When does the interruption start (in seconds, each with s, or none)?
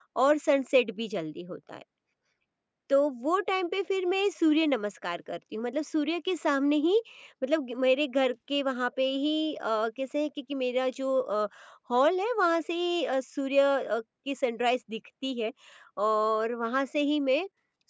none